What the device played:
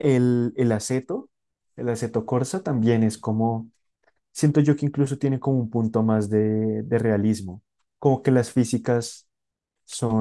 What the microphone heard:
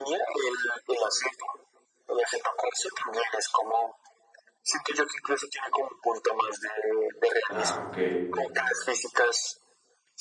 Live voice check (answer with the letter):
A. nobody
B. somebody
B